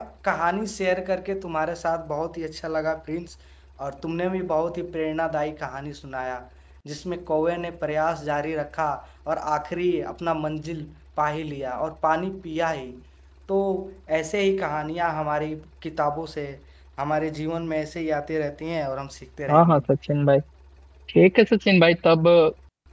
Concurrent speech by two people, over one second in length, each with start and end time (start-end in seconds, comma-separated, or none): none